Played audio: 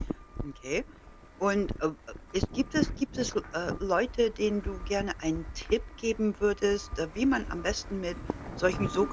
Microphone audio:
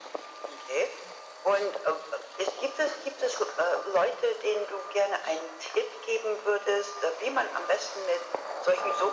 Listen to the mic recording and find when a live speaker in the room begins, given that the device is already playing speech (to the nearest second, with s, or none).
none